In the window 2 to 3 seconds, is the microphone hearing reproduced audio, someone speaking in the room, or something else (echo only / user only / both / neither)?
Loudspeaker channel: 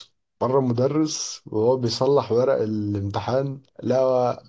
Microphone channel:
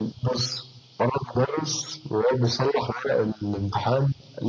echo only